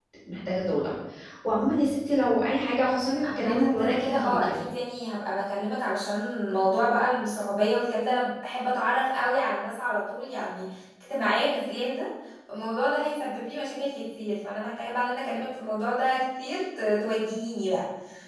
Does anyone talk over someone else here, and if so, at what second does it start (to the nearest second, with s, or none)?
3 s